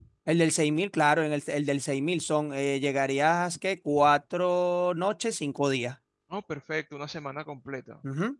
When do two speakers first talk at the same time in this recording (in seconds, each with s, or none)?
none